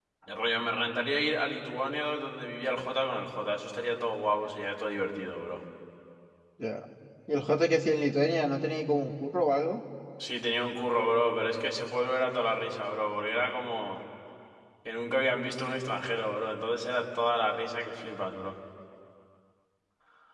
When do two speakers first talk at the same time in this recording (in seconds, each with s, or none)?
none